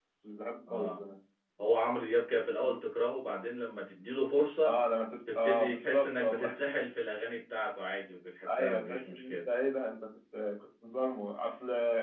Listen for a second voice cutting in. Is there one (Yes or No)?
Yes